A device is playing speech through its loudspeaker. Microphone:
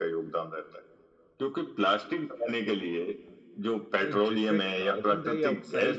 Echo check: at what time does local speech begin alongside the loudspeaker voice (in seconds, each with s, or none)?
4.0 s